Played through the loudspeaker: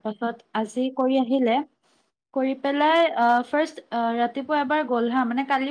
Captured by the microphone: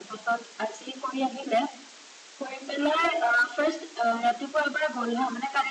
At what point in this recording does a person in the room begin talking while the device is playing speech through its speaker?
none

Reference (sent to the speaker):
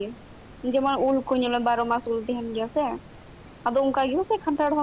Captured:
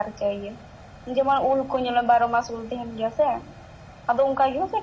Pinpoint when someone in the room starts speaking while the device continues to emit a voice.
none

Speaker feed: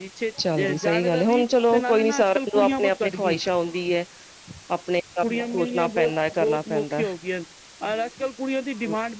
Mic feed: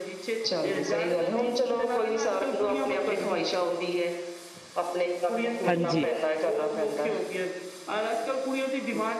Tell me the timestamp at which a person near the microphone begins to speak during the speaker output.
5.7 s

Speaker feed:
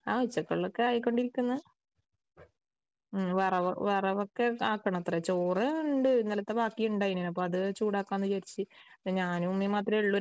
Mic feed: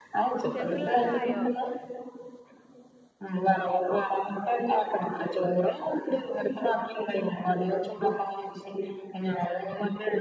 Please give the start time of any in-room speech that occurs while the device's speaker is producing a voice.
0.4 s

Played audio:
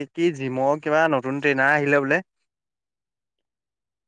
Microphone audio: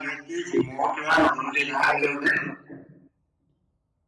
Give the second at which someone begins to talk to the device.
none

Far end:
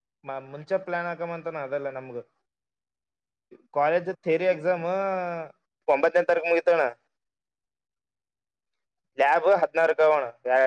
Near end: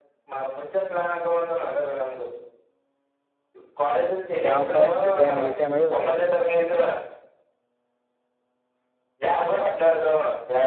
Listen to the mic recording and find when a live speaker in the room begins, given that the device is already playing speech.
4.4 s

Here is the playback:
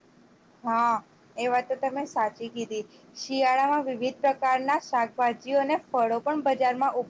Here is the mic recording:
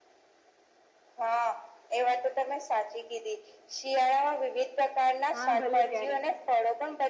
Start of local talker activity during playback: 5.3 s

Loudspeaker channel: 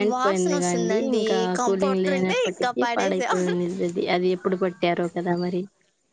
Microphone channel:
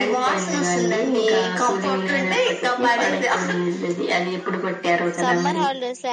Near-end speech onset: 5.2 s

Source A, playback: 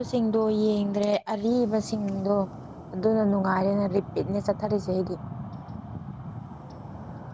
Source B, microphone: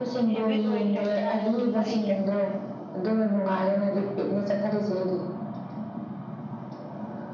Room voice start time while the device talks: 0.3 s

